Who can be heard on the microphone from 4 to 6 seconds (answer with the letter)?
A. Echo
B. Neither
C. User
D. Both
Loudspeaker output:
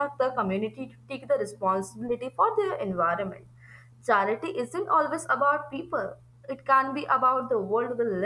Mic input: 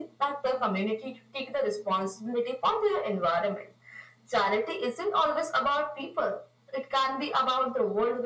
A